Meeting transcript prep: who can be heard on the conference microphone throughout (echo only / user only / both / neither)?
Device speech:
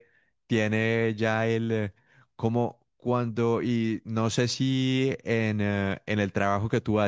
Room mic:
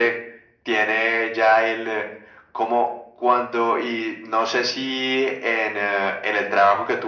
echo only